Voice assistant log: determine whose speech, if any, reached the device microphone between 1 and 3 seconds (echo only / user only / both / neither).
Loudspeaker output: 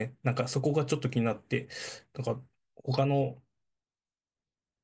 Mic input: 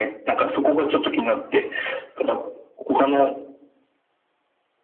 echo only